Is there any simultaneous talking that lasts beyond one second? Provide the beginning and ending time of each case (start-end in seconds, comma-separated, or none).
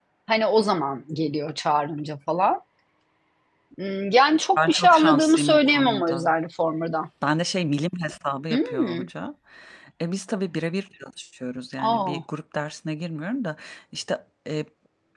4.6-6.3